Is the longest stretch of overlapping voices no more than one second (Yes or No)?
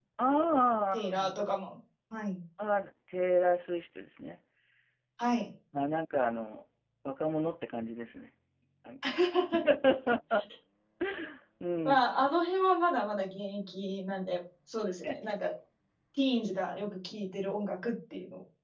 Yes